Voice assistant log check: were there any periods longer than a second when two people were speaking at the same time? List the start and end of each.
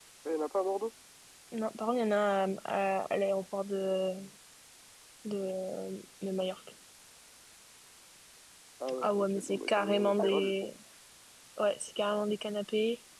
9.0-10.7

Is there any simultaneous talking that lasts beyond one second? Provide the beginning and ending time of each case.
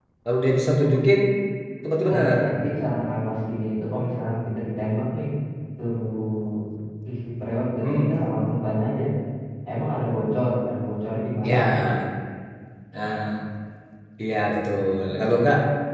none

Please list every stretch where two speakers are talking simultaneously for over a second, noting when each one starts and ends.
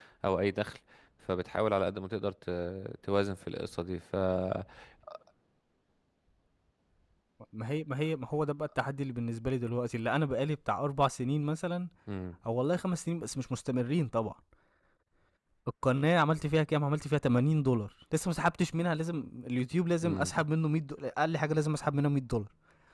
none

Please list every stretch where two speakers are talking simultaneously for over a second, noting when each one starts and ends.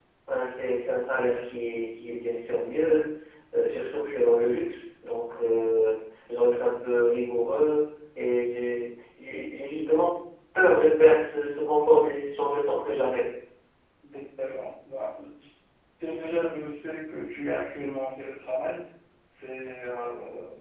none

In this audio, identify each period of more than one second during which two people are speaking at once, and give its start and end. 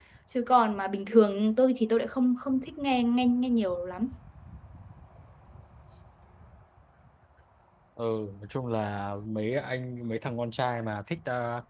none

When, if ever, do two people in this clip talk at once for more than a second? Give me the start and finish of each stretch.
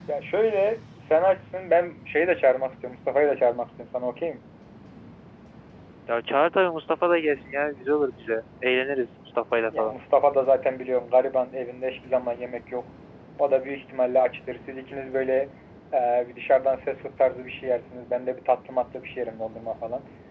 none

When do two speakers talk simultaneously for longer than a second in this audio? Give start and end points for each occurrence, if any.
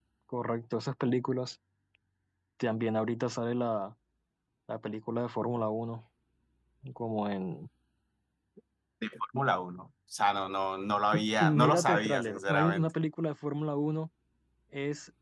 11.4-12.9

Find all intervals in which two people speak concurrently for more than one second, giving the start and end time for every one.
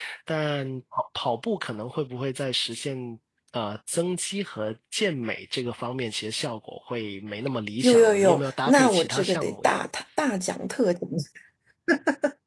7.8-9.8

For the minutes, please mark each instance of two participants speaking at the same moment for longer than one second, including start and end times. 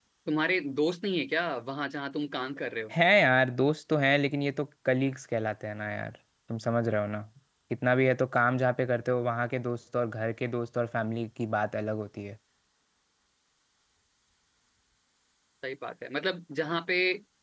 none

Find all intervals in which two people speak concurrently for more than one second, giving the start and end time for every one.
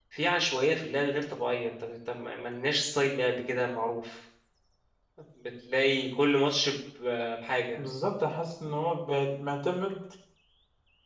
none

